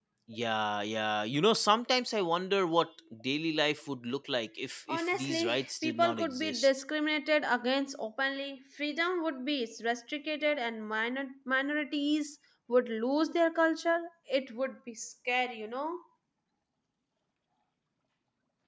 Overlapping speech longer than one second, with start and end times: 4.9-6.7

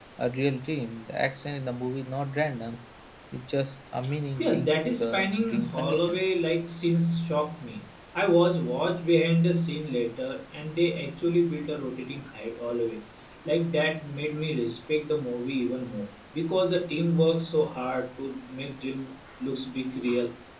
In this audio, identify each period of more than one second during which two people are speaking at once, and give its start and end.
4.4-6.2

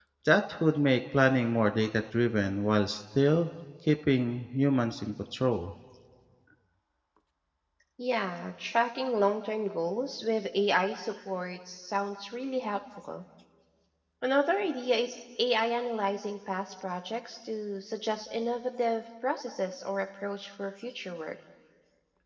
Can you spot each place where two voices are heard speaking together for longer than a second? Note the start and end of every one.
none

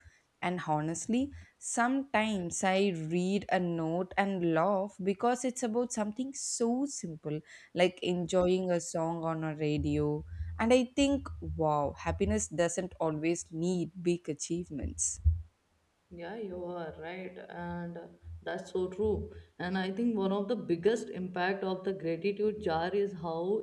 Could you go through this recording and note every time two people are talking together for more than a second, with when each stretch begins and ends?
none

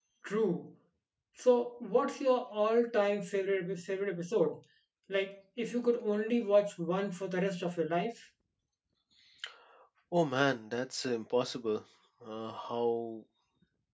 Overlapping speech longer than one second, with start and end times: none

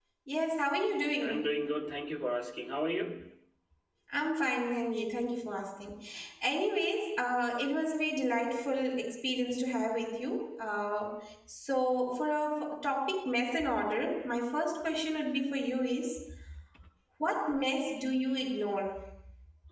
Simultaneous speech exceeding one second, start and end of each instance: none

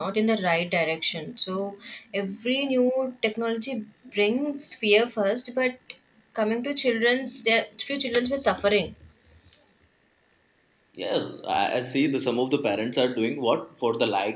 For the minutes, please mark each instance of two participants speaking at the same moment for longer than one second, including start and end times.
none

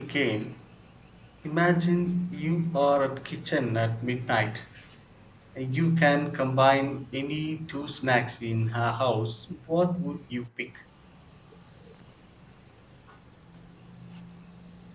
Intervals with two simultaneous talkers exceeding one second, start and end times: none

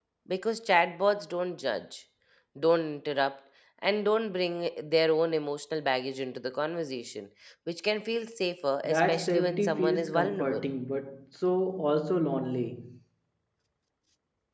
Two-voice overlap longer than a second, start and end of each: 8.8-10.7

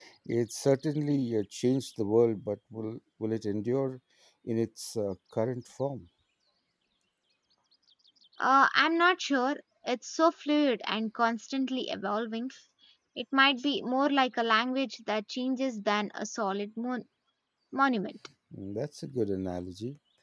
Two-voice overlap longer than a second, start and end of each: none

